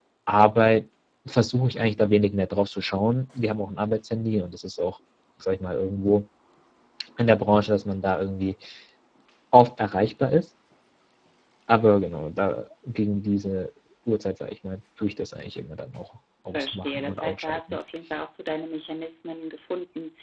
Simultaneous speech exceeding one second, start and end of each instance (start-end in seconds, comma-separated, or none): 16.5-17.8